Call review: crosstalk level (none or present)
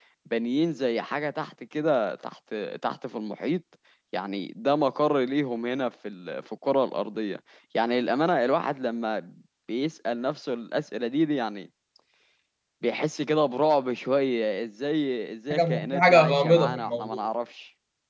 present